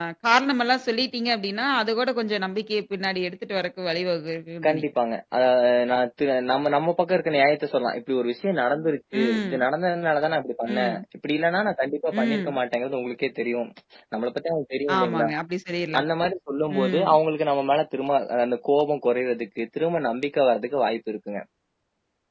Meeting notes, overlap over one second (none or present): none